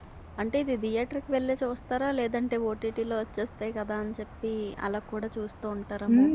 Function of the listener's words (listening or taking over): taking over